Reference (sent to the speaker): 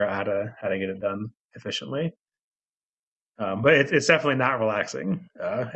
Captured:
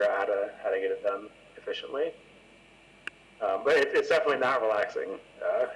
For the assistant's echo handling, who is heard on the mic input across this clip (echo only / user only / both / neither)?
echo only